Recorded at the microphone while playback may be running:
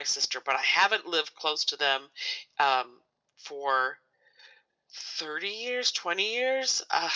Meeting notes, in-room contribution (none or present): none